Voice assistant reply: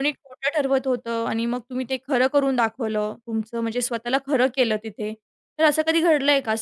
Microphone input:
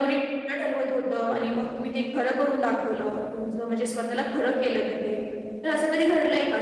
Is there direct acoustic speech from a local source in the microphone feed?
No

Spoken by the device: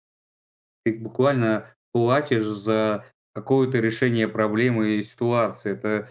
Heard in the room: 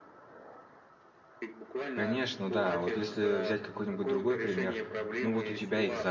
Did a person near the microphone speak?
Yes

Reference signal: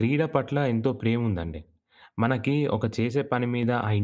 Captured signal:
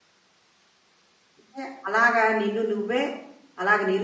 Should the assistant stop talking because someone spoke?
Yes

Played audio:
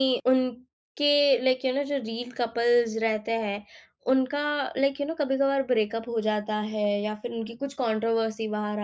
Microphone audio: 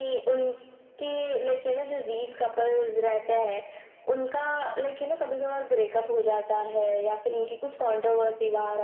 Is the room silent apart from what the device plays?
Yes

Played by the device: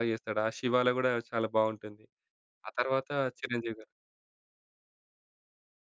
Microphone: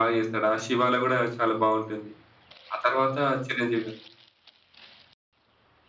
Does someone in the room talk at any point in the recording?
No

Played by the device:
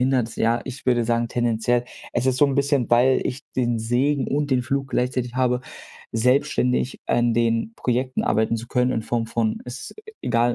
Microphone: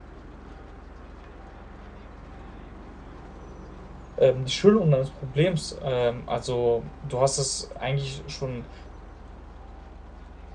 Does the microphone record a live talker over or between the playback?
Yes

